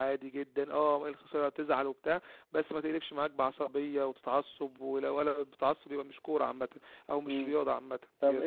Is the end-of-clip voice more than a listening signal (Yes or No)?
Yes